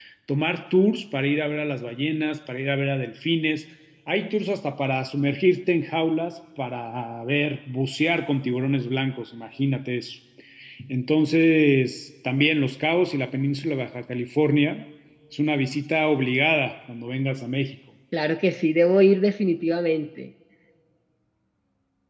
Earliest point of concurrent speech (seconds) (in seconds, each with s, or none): none